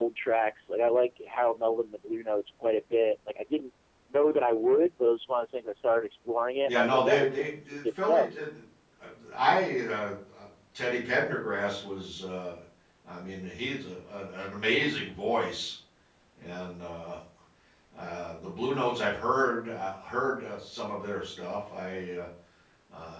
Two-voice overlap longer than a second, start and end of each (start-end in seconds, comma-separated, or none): 6.7-8.2